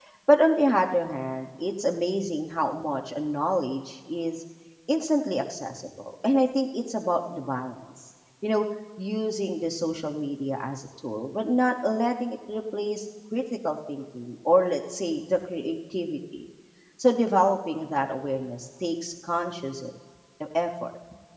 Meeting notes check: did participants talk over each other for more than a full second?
No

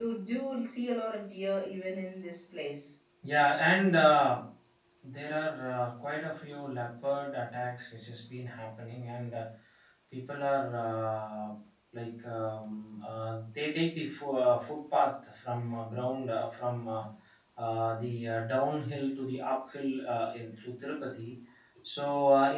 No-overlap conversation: Yes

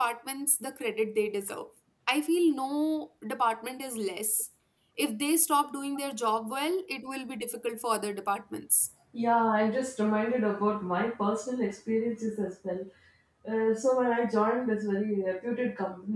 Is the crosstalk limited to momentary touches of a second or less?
Yes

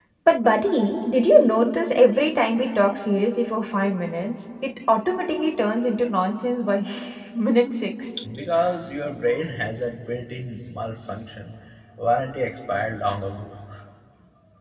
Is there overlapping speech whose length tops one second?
No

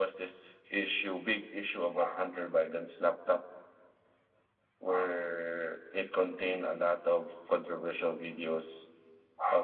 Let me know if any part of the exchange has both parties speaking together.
No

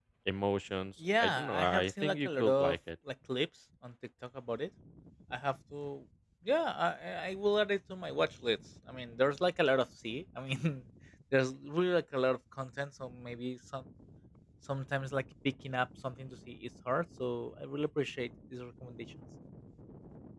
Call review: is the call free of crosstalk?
No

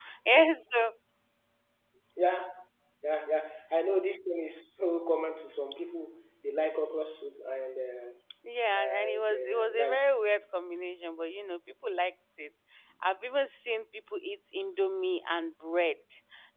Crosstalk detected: Yes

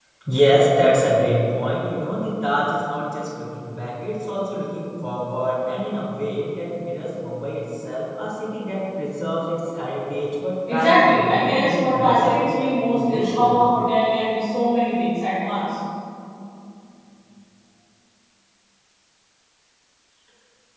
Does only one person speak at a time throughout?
No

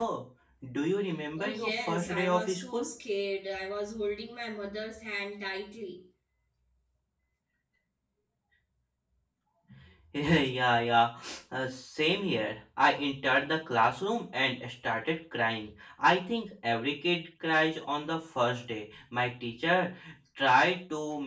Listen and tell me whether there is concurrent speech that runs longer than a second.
Yes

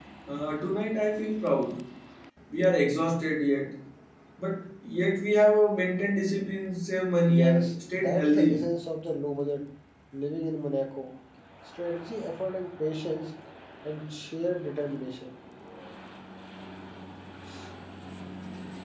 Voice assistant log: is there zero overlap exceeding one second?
No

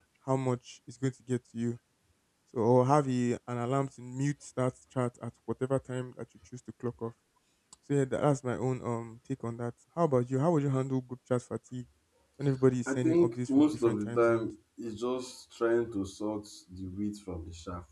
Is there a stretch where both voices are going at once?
Yes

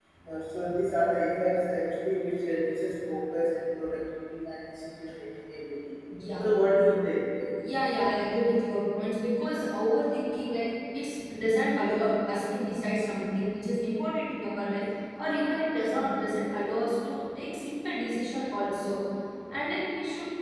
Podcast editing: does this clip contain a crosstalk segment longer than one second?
No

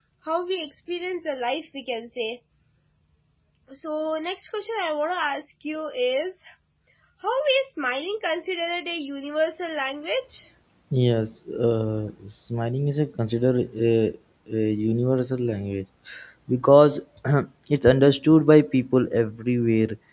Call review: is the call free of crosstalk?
Yes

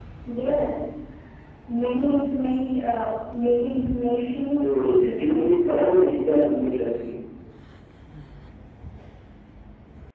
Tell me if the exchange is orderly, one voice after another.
No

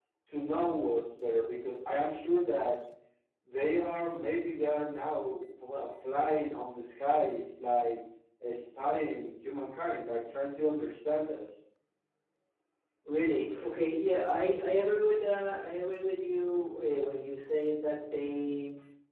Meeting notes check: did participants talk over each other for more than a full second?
No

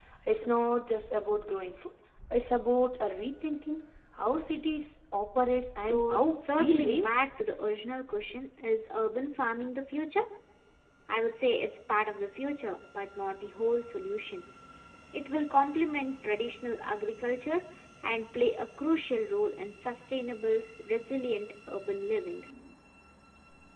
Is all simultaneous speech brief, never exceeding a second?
No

